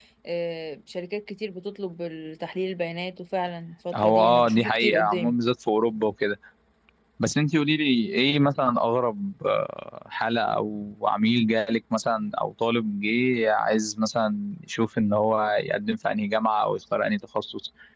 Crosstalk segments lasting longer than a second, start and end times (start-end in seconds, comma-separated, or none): 3.9-5.3